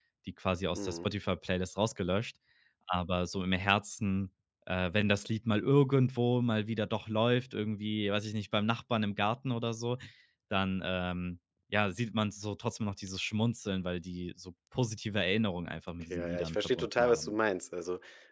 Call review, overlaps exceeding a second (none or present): present